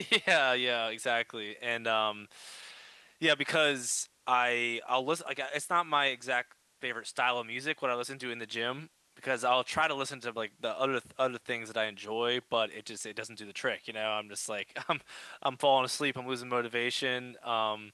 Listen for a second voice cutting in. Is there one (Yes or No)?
No